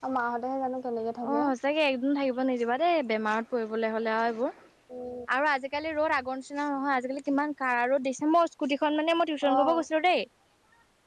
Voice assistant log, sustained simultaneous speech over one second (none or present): none